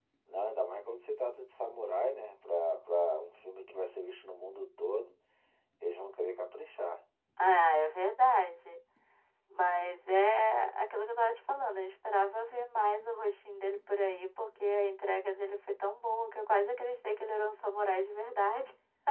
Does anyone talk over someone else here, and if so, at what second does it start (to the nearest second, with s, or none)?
none